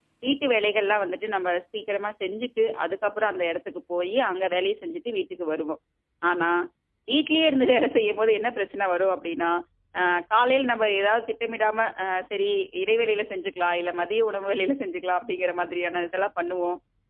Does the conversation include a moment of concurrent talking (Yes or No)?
No